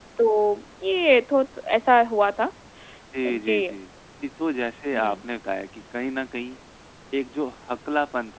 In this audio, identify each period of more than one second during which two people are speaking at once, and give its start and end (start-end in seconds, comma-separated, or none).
none